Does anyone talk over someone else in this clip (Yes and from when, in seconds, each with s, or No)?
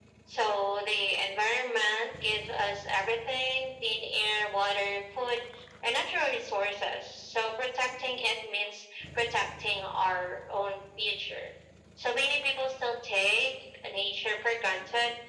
No